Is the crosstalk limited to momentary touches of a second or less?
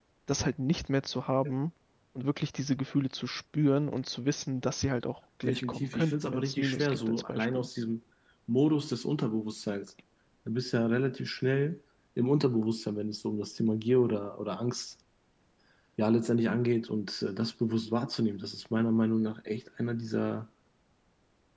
No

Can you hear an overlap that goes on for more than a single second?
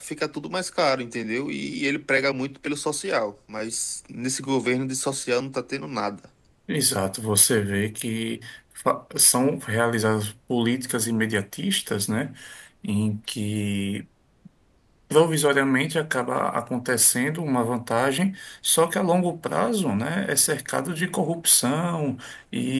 No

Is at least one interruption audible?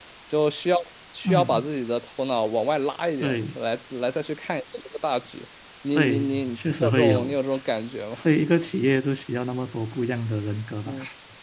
Yes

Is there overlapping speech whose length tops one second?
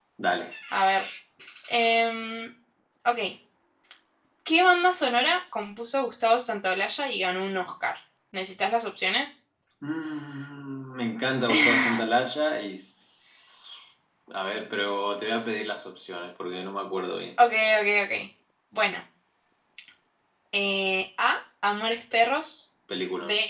No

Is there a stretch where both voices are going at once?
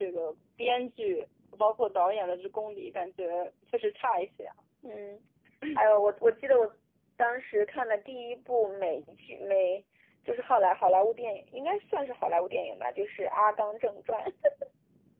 No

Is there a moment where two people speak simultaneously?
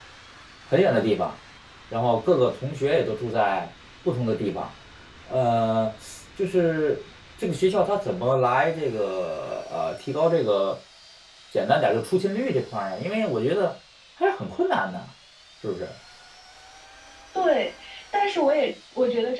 No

